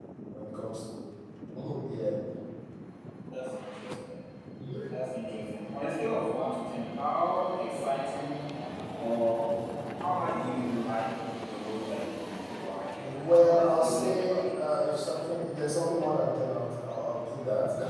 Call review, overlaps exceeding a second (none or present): present